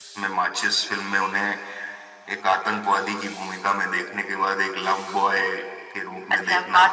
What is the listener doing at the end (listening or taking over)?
taking over